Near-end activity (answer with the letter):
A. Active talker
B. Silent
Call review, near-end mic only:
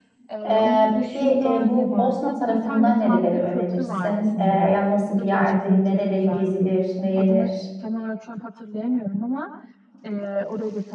A